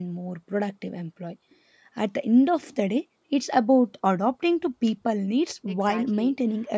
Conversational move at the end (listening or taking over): taking over